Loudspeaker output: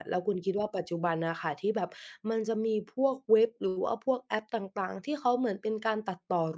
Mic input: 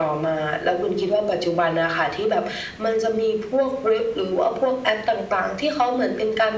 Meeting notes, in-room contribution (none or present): none